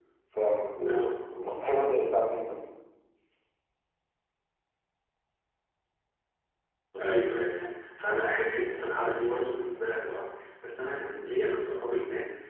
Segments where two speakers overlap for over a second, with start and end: none

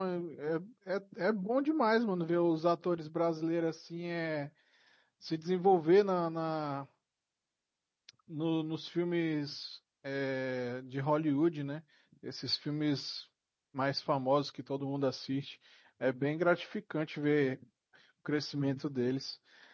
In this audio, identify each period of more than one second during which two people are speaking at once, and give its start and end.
none

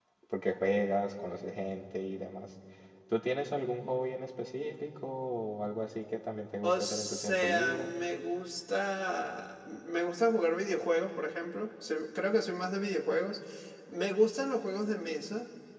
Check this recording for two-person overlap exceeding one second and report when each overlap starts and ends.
6.6-7.9

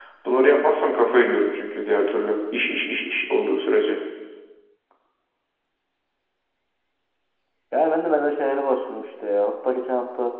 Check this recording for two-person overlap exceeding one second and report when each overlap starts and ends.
none

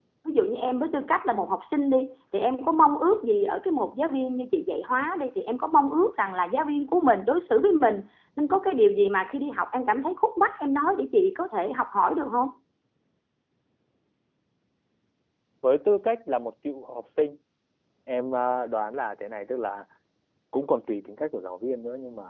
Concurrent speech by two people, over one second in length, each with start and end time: none

